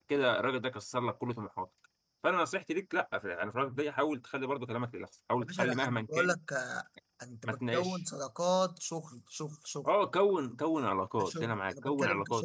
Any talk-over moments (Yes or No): Yes